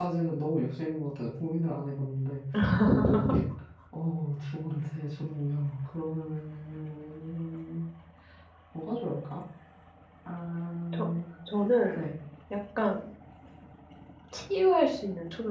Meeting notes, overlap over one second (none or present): none